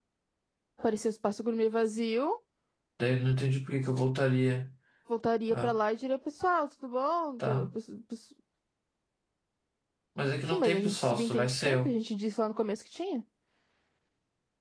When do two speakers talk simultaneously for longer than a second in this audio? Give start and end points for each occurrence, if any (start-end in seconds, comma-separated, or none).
10.5-11.9